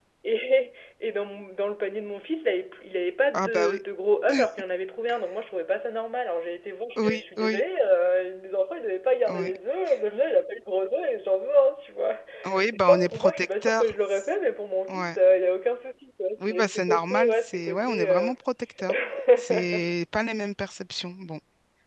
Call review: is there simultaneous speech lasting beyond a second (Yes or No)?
Yes